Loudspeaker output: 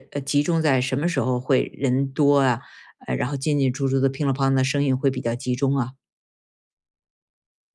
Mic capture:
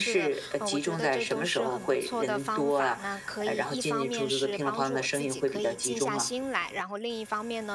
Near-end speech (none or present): present